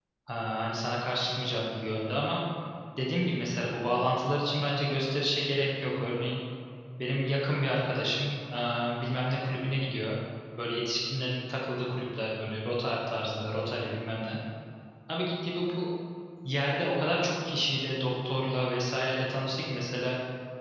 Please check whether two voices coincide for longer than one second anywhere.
No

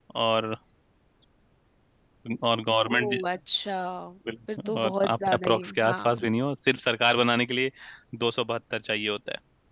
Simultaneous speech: Yes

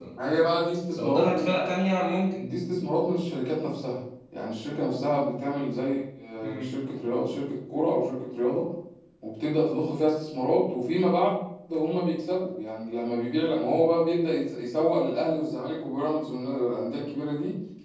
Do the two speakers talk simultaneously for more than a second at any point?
No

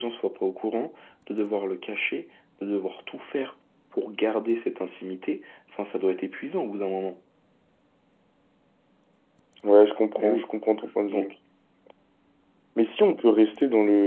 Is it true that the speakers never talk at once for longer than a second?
Yes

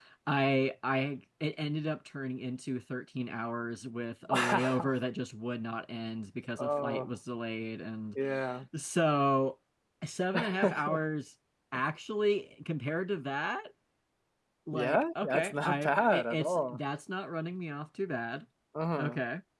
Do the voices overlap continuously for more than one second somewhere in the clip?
Yes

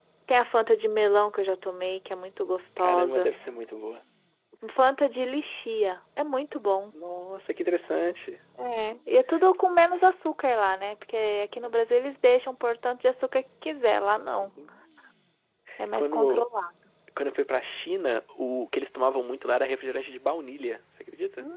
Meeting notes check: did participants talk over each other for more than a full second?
No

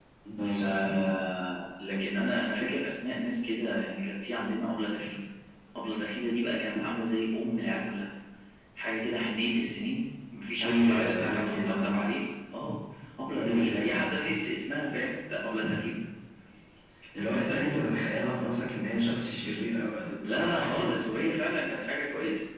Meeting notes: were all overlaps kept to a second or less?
No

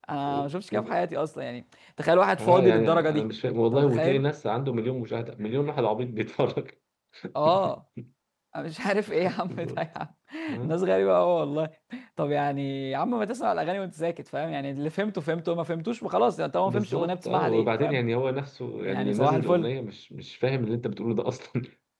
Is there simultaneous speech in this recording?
Yes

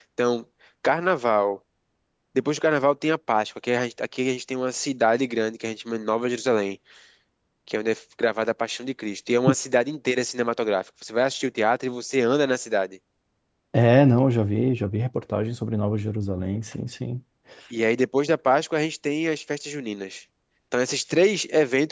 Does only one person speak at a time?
Yes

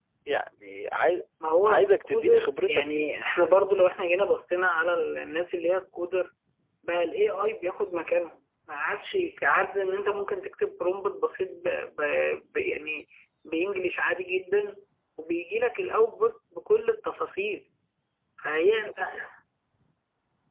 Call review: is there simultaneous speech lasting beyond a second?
Yes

